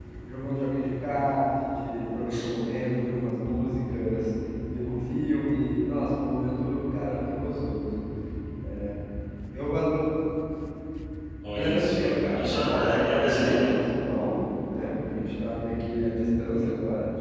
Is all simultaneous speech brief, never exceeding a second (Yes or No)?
No